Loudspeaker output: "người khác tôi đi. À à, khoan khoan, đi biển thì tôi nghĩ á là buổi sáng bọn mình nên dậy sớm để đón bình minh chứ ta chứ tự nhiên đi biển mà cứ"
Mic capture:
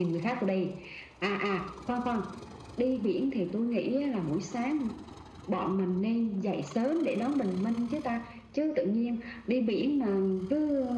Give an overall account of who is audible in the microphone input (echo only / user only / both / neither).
echo only